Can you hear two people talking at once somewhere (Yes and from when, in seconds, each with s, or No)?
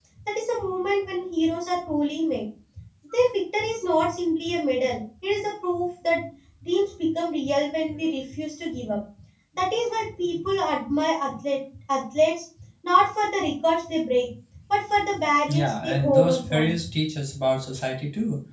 Yes, from 15.5 s